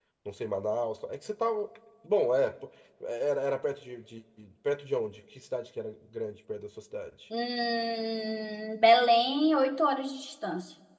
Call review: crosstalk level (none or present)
none